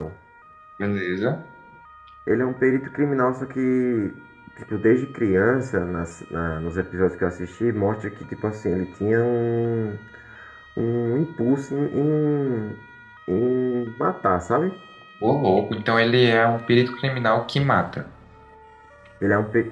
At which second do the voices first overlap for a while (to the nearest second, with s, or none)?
none